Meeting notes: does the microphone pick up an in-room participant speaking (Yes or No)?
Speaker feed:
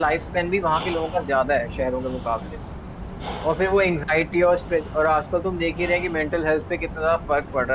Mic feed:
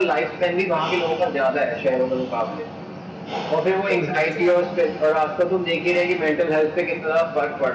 Yes